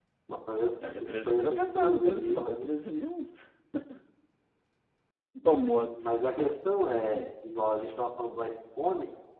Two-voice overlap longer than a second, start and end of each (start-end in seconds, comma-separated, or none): 0.8-2.7